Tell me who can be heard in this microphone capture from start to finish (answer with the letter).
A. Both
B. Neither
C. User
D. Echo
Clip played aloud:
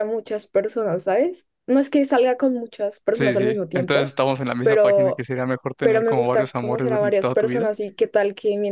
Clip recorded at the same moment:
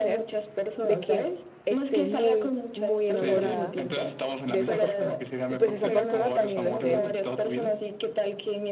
A